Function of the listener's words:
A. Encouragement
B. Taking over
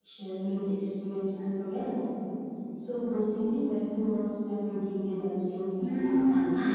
B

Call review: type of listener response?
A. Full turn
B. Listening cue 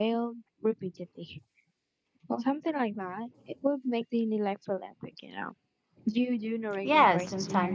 A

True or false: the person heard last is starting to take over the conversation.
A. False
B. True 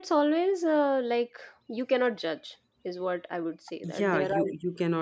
B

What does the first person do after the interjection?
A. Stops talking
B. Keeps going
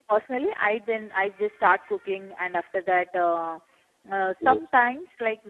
B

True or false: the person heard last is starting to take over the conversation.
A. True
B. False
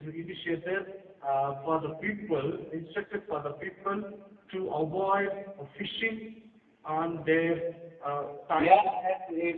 A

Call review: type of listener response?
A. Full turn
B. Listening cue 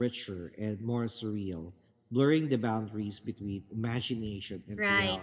A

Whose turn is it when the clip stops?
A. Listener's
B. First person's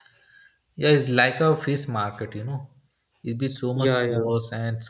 B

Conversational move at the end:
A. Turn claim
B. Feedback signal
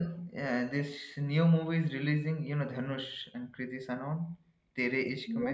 A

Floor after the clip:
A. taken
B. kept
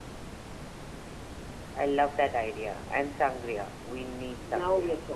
A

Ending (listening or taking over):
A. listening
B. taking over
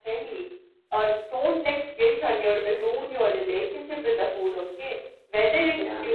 A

